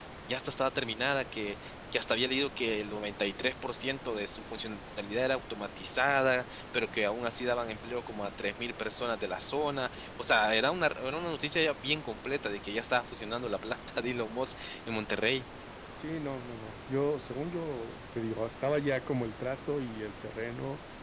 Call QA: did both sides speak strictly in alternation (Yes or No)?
Yes